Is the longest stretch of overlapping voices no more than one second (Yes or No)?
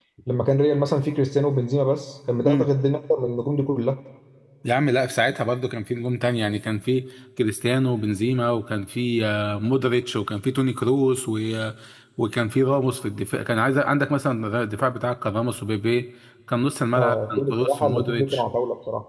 No